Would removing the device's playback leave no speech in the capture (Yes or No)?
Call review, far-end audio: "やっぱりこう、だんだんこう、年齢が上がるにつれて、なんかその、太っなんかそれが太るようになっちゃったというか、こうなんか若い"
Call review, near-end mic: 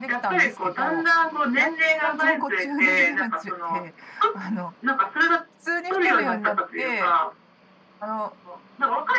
No